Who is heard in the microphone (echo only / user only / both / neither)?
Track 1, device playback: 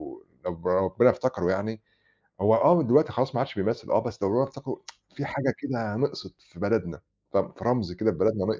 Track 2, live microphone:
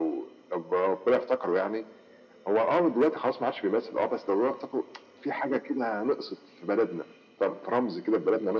echo only